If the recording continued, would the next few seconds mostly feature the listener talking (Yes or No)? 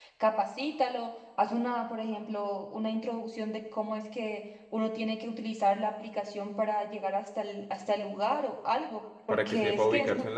Yes